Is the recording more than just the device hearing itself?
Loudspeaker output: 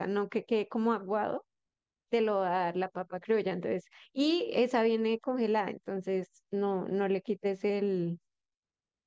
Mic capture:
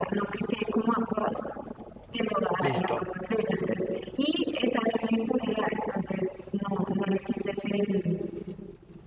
Yes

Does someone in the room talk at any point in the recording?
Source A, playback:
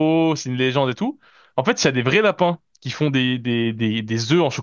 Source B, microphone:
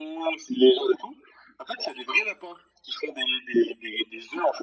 No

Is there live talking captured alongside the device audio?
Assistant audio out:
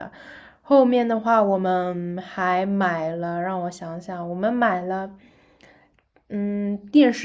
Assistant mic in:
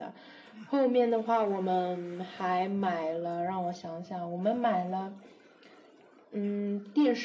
No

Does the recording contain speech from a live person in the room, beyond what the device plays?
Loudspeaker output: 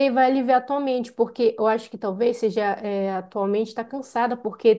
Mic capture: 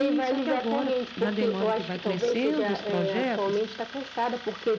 Yes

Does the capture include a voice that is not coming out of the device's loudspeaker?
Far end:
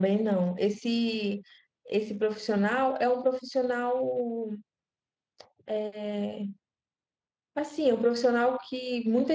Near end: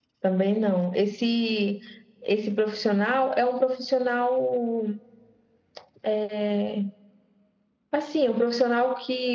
No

